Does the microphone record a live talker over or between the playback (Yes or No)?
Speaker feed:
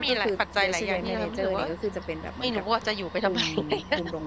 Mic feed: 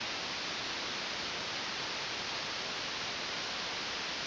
No